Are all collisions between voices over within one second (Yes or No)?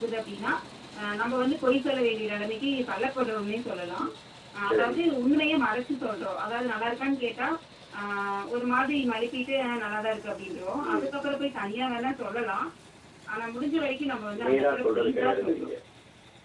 No